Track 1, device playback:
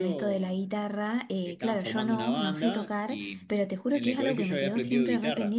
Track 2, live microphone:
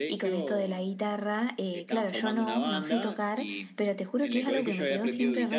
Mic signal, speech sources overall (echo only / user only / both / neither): echo only